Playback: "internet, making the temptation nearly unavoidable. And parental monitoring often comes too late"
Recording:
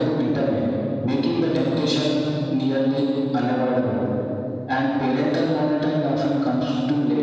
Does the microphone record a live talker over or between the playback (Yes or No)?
No